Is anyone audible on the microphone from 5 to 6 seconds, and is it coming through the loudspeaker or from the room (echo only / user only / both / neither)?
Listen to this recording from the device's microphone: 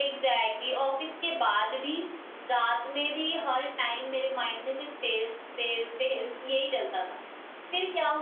echo only